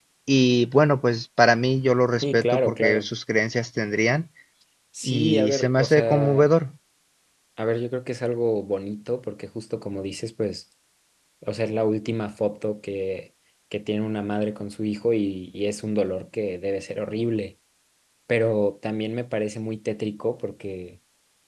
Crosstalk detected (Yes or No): Yes